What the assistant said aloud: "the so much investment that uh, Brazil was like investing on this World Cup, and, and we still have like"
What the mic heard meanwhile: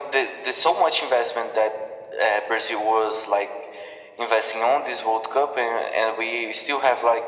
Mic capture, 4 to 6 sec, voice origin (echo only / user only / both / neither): echo only